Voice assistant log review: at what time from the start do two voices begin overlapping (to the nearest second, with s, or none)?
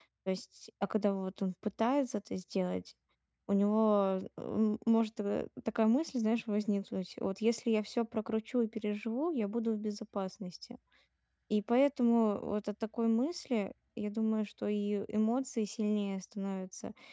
none